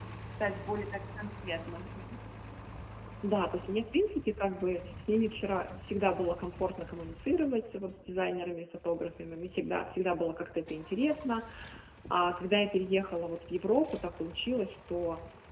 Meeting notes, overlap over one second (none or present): none